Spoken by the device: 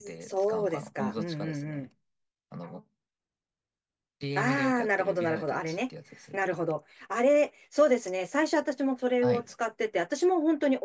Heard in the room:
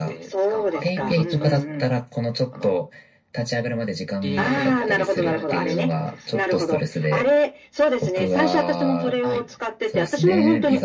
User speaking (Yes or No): Yes